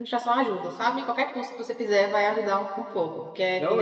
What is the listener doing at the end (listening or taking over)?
taking over